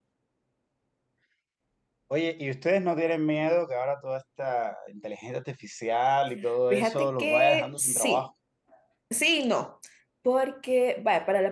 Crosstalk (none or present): present